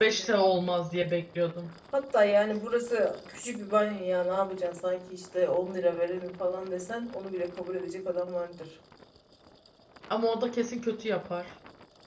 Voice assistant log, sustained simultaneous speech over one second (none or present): none